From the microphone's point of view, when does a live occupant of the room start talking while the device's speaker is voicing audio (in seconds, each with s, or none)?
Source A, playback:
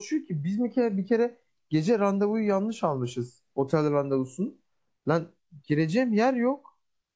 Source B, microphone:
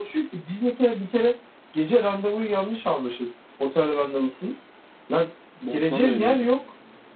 5.6 s